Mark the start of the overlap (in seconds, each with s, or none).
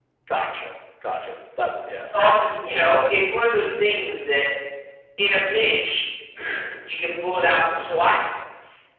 none